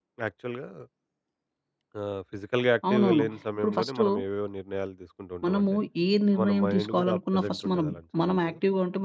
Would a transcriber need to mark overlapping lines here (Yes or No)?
Yes